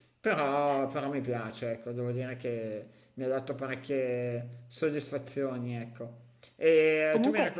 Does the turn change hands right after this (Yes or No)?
No